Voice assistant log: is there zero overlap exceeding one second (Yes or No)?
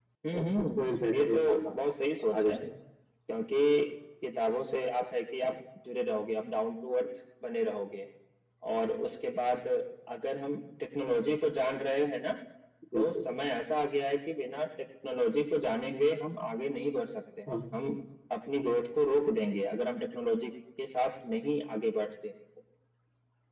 No